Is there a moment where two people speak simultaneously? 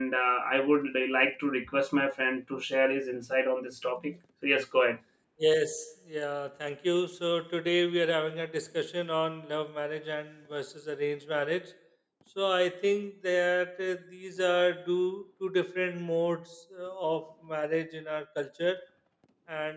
No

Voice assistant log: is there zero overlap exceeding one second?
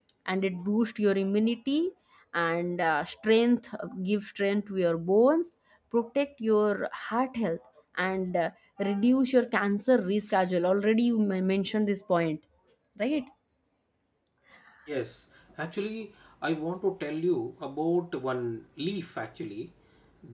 Yes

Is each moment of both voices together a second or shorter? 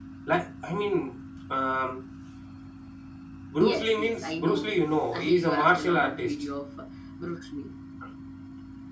No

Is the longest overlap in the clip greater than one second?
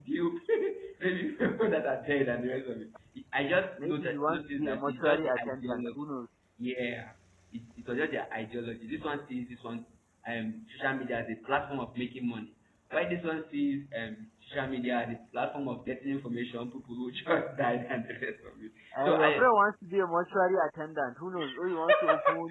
Yes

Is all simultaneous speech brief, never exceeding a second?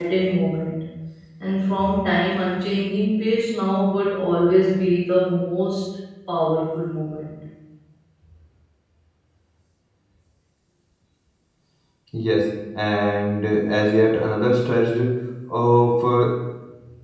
Yes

